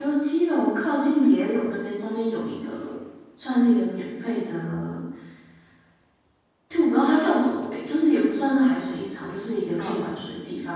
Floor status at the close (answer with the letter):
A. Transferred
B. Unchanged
B